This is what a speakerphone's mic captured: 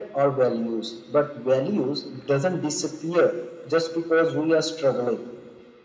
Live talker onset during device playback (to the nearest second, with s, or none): none